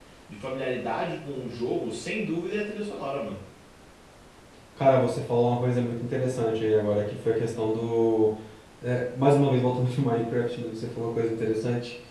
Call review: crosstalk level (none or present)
none